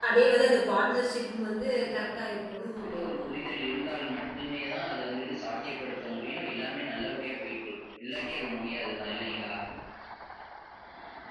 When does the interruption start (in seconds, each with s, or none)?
1.8 s